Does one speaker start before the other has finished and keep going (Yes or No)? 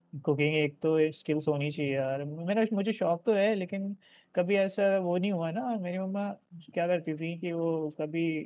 No